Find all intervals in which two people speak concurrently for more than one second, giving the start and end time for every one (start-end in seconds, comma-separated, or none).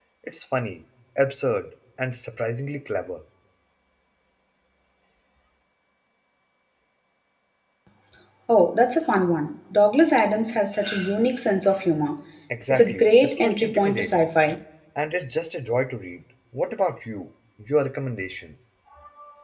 12.7-14.3